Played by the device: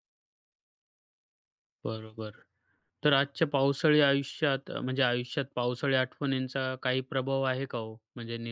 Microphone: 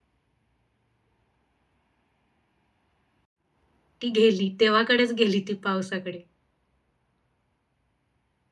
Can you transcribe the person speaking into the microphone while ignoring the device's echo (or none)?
ती गेली, देवाकडेच गेली ती पावसाकडे.